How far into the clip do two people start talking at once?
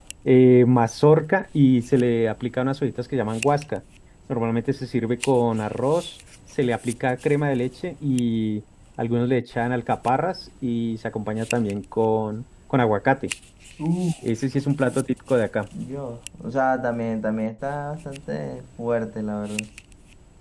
none

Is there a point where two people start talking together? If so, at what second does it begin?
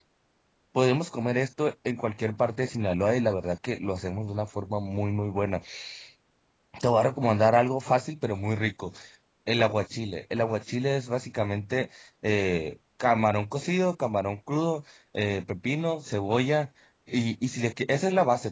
none

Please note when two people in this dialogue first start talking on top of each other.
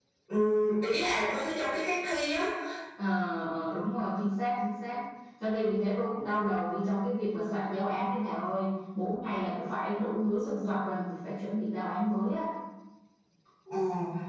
none

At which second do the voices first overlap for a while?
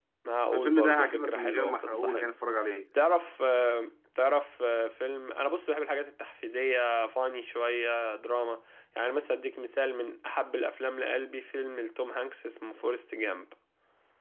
1 s

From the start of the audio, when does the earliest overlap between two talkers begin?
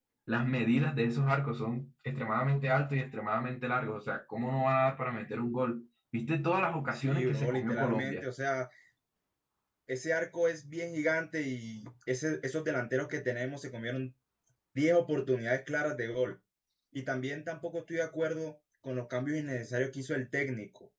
7 s

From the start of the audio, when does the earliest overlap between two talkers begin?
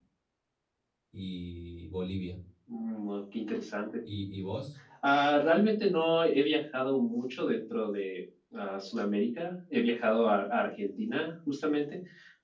none

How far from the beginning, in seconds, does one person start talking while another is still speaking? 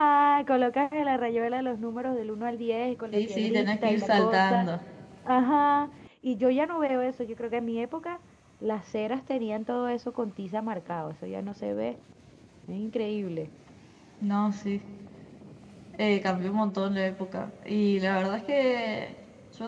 3 s

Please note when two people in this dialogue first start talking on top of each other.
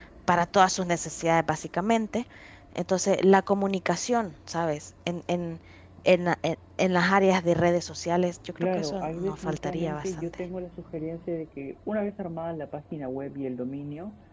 9 s

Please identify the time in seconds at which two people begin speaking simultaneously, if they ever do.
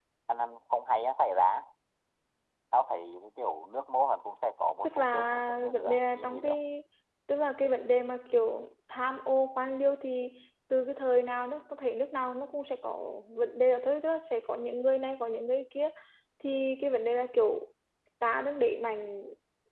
5 s

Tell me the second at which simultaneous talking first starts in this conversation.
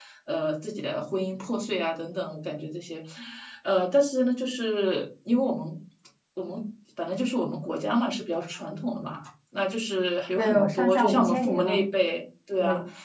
10 s

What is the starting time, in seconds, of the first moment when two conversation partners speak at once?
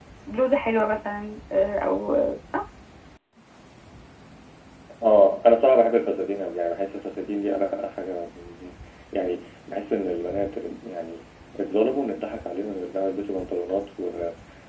none

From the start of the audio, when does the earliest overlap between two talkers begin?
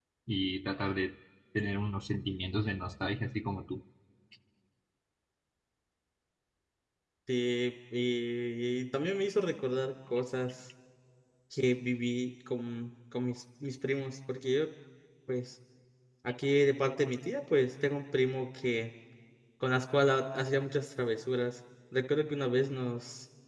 none

